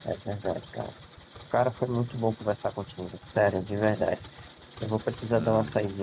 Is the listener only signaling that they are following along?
Yes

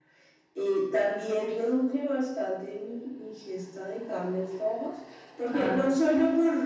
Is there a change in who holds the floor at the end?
No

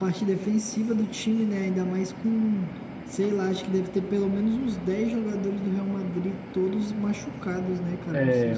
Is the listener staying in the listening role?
No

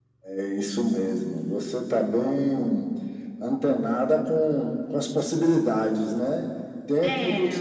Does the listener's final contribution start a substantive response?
No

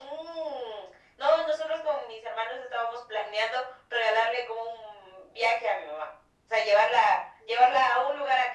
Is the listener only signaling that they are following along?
Yes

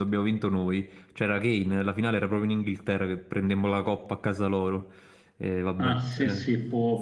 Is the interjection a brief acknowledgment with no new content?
No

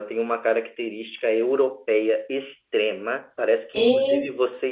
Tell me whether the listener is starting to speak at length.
No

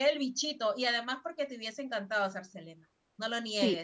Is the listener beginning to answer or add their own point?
Yes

